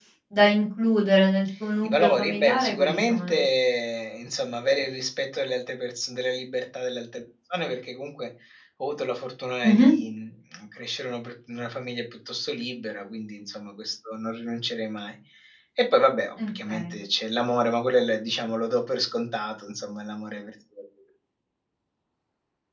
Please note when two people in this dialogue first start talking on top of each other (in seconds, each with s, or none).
1.8 s